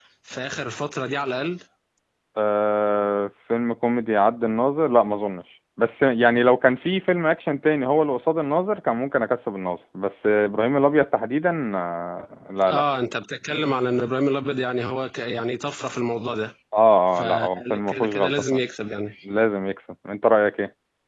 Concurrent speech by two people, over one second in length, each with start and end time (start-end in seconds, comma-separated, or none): 17.2-18.6